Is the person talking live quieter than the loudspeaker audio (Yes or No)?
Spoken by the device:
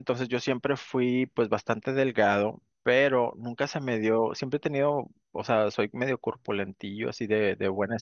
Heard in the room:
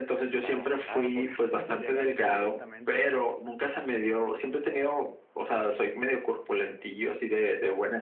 Yes